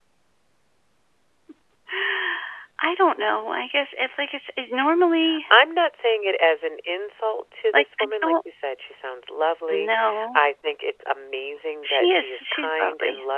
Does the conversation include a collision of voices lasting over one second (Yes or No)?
Yes